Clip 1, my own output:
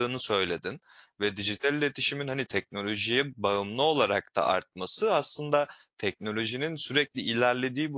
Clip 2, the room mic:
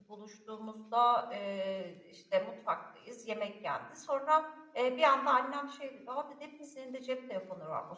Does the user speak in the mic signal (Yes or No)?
Yes